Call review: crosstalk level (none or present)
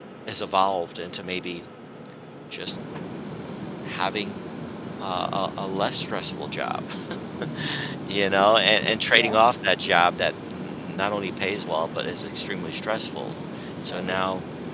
present